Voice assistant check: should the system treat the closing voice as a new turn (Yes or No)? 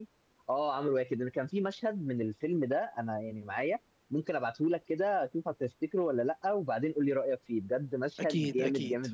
Yes